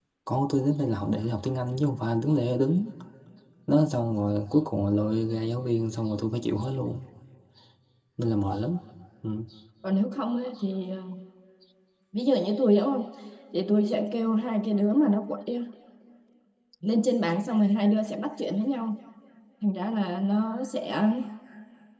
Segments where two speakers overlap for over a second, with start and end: none

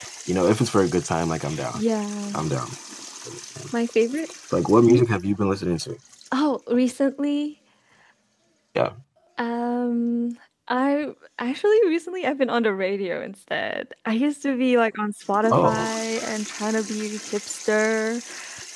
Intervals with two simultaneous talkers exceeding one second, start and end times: none

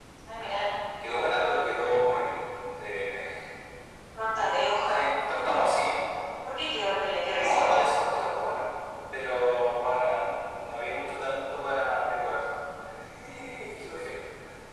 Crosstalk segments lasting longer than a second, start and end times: none

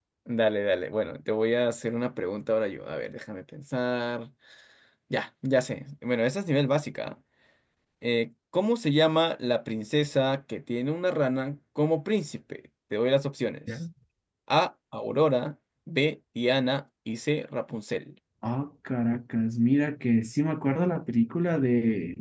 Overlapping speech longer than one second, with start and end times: none

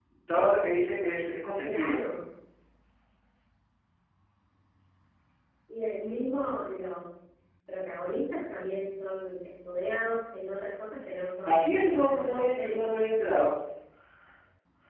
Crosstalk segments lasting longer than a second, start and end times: 11.4-12.9

